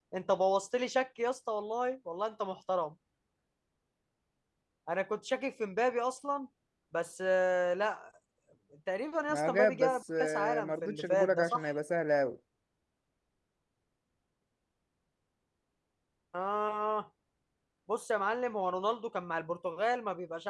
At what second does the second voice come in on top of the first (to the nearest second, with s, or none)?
9 s